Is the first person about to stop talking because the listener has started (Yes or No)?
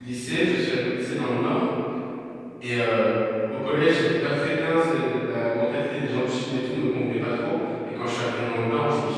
No